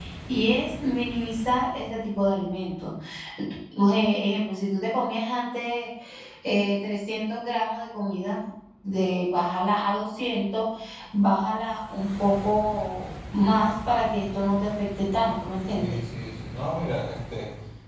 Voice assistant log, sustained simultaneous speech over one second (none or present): none